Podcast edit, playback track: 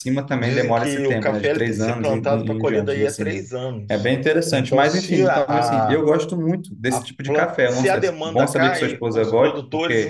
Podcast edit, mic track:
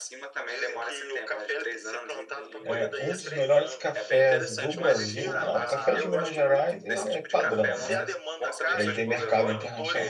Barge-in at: 2.6 s

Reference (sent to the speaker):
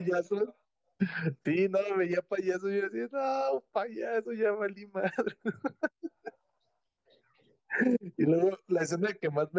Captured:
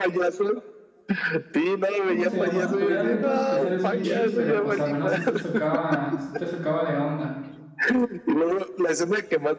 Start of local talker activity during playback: 2.0 s

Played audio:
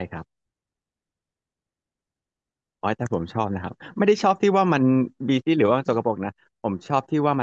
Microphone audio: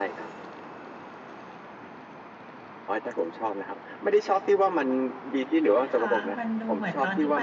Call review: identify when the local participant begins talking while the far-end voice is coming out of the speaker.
5.6 s

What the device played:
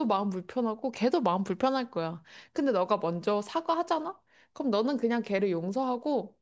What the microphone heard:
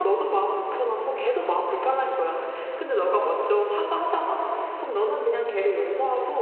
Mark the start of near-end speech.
none

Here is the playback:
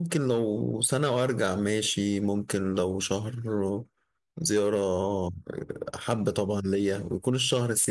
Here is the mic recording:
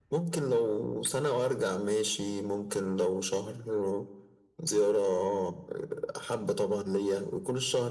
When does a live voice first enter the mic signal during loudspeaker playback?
none

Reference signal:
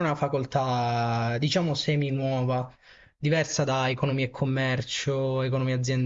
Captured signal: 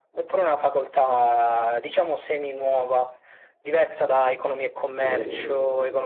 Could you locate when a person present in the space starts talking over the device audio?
4.9 s

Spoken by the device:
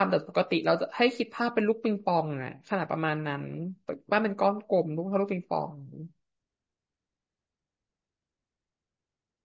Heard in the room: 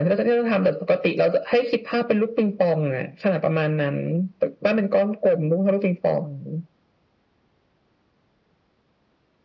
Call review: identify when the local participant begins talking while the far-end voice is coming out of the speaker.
none

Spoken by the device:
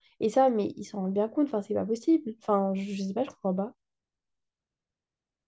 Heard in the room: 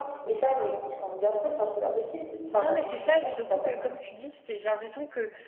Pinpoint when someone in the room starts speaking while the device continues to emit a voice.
2.6 s

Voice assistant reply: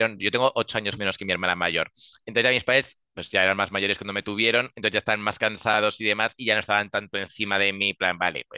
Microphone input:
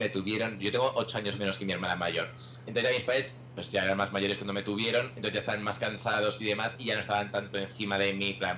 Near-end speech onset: none

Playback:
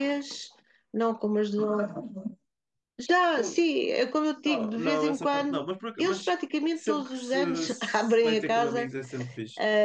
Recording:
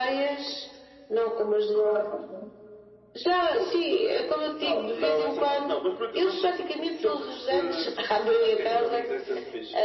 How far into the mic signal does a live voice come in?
none

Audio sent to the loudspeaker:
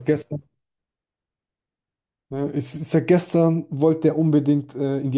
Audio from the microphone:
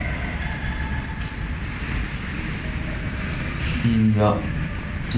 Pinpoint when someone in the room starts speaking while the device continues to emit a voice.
3.8 s

